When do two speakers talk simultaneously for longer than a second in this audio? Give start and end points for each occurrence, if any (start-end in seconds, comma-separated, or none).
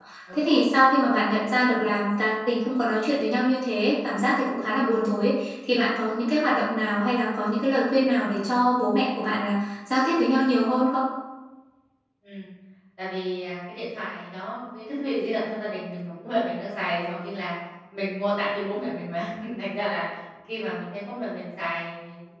none